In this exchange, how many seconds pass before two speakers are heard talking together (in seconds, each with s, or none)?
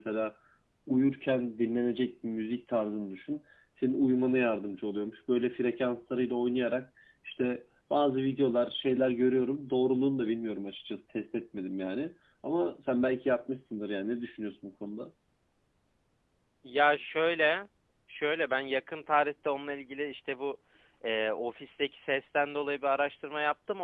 none